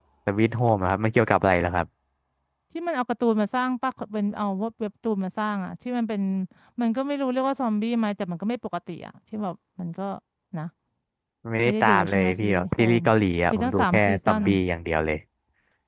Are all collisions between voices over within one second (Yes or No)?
No